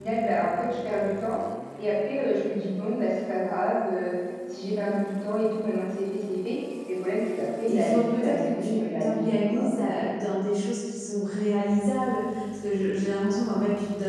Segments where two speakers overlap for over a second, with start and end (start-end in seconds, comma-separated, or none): 7.7-9.7